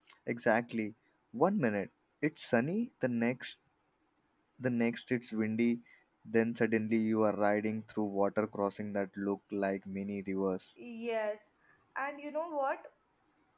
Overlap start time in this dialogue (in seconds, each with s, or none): none